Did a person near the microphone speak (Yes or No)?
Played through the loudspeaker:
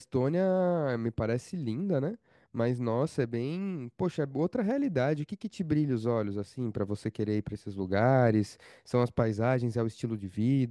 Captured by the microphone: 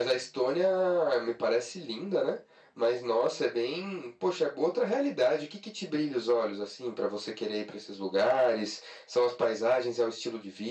No